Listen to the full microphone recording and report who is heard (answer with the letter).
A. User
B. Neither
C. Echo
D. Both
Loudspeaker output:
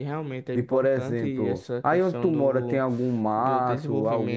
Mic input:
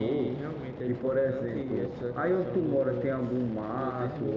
C